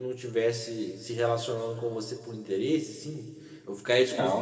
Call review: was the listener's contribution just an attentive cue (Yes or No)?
No